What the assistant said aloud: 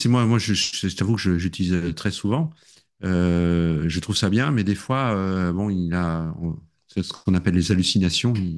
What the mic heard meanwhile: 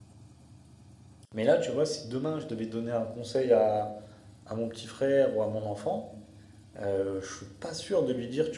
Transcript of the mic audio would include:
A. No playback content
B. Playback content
A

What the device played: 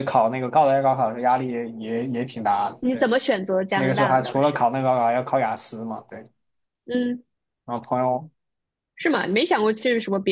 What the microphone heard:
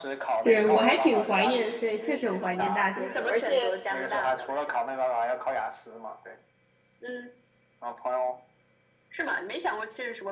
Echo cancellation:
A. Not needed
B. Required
B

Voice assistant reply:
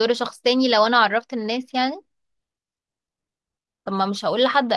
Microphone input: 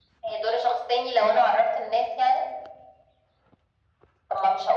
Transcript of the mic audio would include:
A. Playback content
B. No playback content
A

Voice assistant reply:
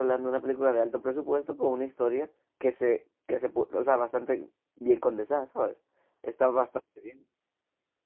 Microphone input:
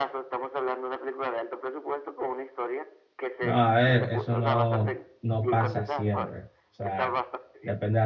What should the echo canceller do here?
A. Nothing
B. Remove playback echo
B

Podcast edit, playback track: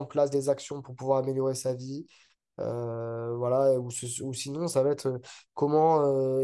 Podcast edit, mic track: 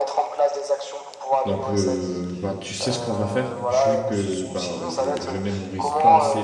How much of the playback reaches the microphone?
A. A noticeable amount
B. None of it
A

